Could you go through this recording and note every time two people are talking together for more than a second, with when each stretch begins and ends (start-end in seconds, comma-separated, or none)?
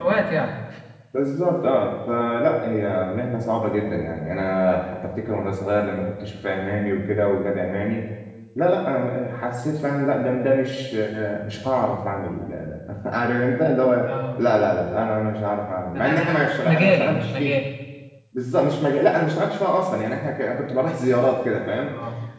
16.0-17.6